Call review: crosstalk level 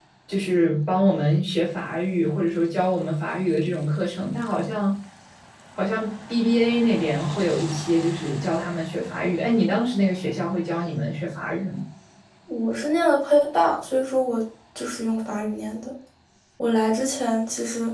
none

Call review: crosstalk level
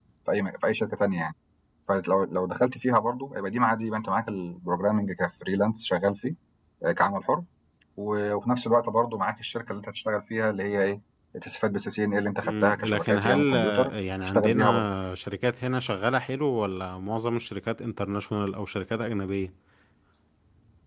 present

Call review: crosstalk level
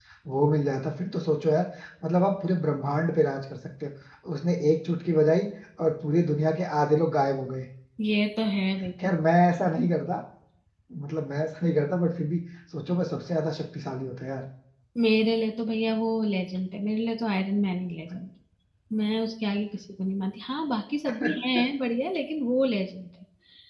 none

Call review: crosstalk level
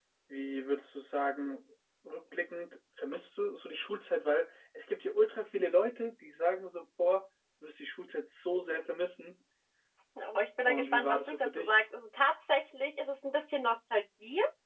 present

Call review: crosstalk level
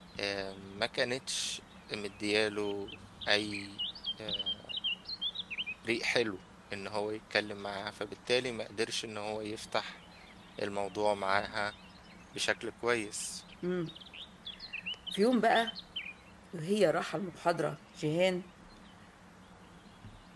none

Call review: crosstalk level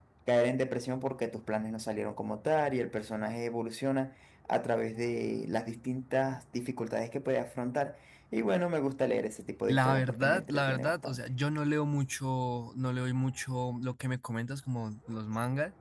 present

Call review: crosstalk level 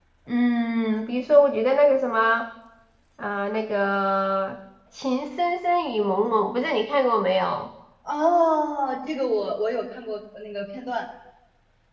none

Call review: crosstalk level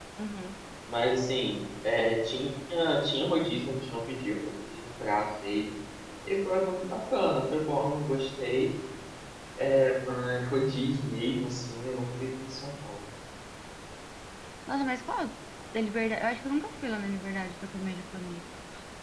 none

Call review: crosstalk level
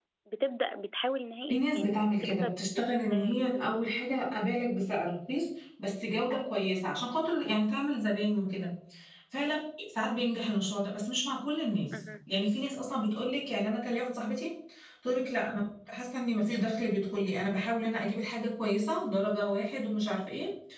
present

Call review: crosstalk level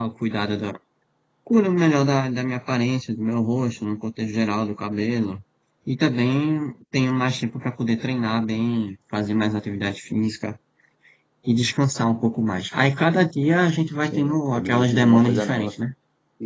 present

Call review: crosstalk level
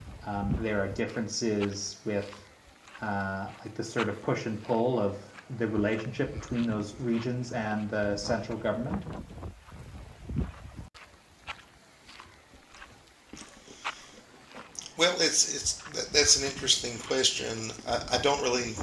none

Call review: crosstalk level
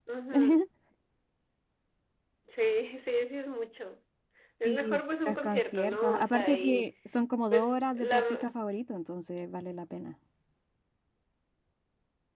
present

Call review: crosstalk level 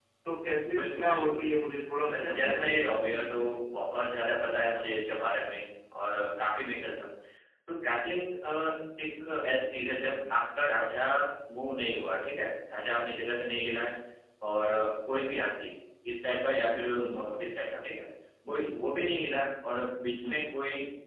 present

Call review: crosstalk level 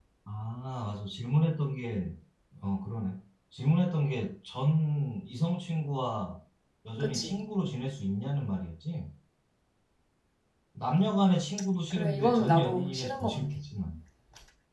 present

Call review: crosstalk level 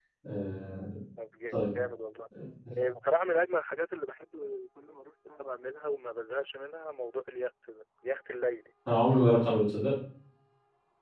none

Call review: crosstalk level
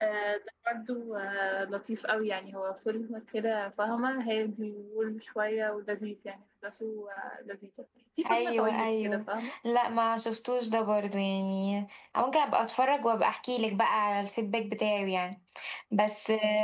present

